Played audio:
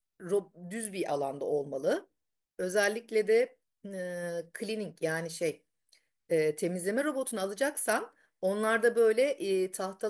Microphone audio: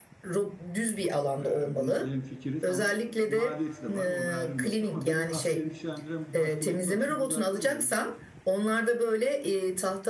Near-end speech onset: 1.4 s

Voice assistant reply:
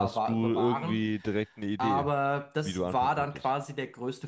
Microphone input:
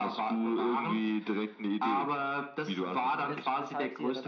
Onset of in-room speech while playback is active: 3.3 s

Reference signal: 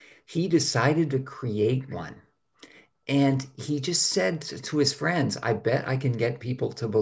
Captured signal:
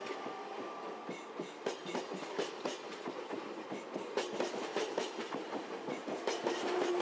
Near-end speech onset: none

